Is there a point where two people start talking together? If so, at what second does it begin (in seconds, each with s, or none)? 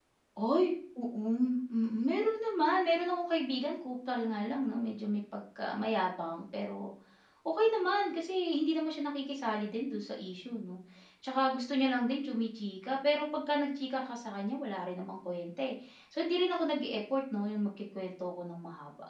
none